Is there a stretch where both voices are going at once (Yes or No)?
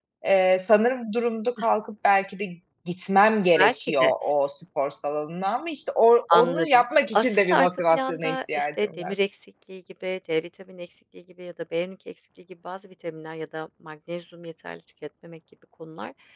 Yes